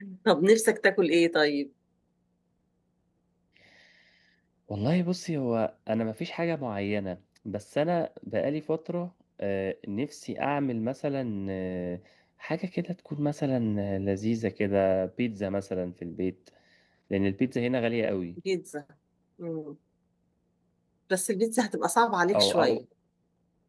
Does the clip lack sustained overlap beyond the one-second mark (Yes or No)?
Yes